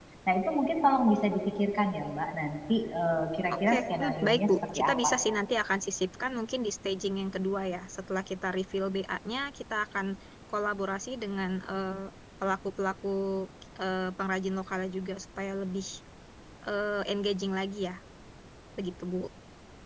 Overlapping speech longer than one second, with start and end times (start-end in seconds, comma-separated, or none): 3.7-5.2